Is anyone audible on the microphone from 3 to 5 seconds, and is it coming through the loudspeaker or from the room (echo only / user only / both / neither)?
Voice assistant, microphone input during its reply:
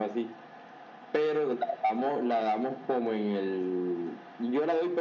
echo only